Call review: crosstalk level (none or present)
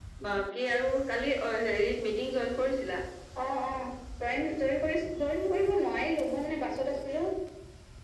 none